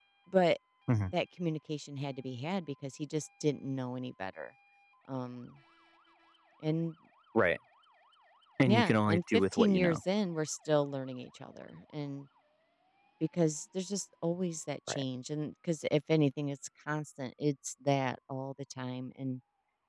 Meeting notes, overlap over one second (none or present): present